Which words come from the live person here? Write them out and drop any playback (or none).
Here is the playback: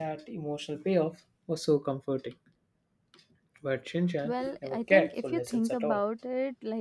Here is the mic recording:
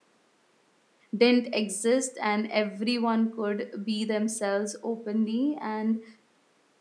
didn't exist and everyone could be themselves openly and